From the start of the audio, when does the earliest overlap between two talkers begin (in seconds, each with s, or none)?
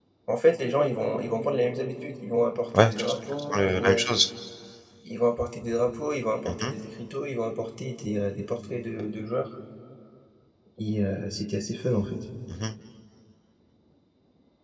2.7 s